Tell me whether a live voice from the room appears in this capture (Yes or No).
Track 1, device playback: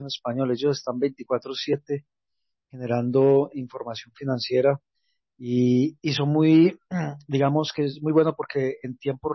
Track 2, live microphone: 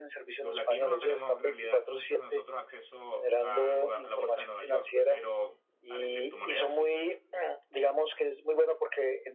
Yes